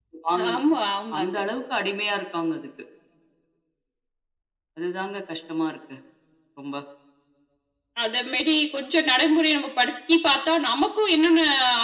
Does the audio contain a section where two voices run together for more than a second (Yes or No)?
No